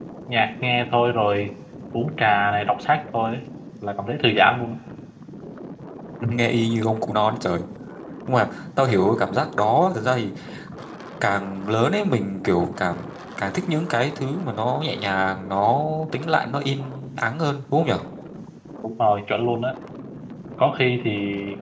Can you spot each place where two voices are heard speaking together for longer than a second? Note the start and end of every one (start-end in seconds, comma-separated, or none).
none